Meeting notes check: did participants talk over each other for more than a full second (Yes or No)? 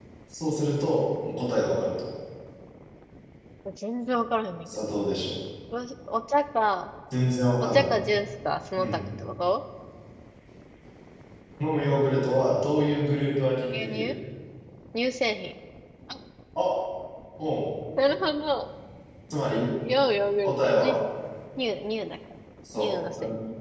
No